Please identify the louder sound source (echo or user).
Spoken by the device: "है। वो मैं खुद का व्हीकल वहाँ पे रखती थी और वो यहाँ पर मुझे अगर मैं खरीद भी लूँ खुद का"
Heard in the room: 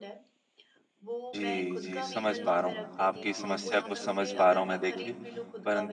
user